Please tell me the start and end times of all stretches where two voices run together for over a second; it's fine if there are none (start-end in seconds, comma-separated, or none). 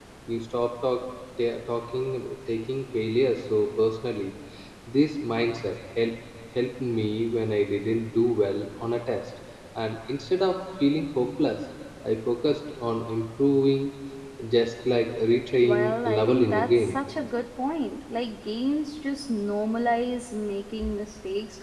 15.6-17.0